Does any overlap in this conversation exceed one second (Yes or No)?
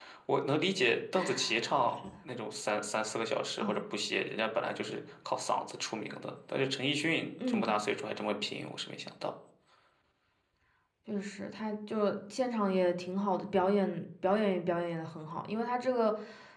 No